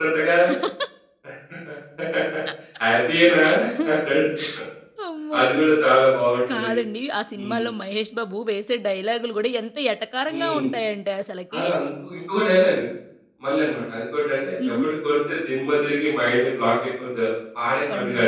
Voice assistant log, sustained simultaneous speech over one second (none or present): none